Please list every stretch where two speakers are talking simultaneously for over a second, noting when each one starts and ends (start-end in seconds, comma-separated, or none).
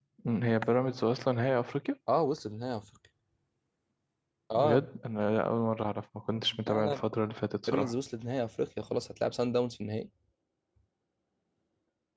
none